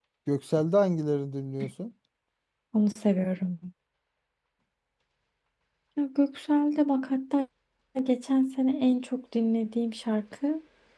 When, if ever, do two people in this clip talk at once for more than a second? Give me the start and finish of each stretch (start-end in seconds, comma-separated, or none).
none